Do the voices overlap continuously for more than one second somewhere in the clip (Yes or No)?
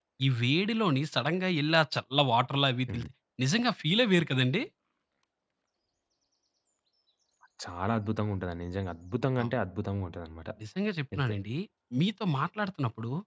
No